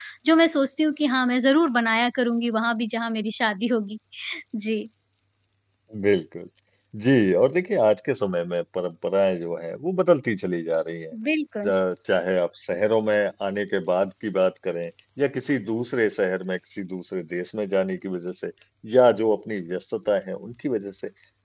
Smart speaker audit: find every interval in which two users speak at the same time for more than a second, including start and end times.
none

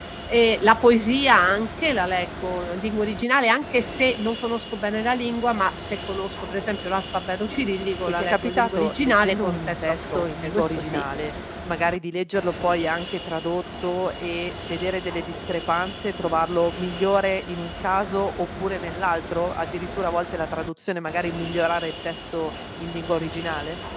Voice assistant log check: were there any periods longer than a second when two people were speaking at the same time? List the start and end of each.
8.0-11.0

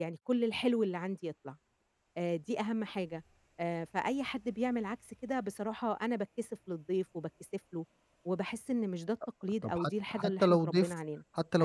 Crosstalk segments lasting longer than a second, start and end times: 9.6-10.9

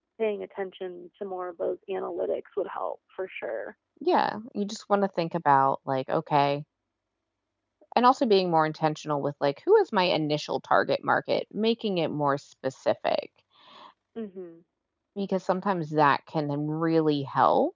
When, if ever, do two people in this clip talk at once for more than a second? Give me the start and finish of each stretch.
none

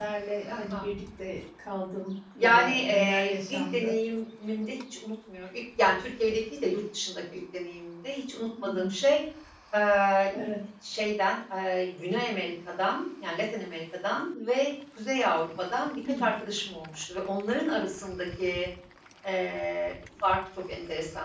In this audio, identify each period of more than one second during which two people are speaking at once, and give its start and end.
2.4-4.0

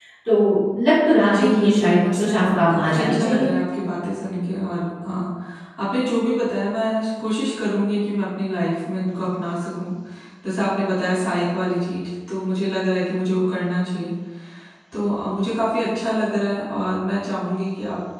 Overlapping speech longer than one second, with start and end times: 1.2-3.5

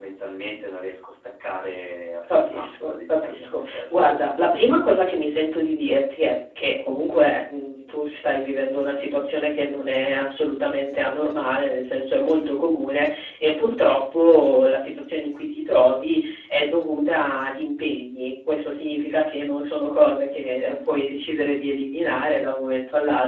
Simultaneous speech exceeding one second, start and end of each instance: 2.3-3.9

